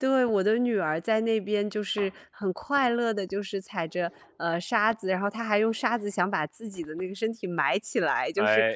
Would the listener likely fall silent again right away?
Yes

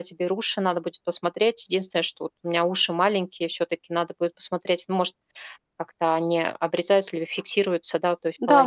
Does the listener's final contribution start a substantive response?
Yes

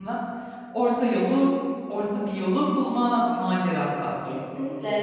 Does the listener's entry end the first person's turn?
Yes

